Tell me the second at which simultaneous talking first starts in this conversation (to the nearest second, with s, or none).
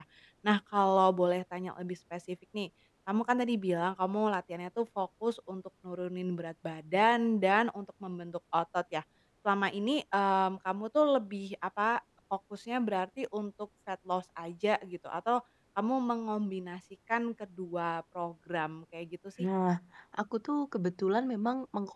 none